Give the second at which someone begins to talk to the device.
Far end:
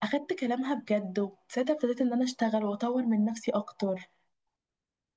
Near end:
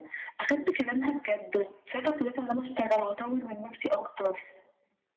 none

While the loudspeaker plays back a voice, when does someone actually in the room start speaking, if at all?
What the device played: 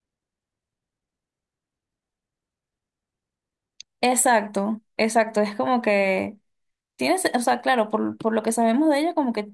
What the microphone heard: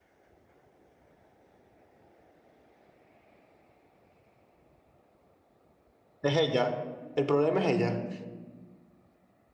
6.2 s

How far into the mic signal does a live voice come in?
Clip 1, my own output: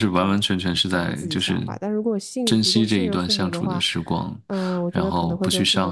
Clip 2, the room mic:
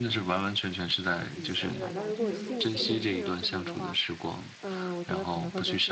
1.3 s

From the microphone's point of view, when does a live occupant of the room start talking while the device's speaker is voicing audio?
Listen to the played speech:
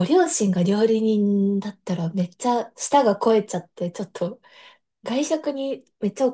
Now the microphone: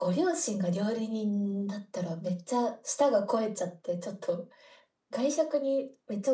none

